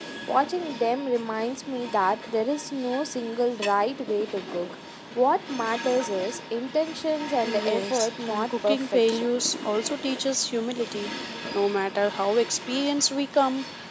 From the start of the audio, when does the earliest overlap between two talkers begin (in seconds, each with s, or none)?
7.4 s